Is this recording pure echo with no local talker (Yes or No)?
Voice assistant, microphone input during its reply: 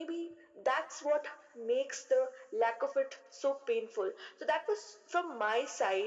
Yes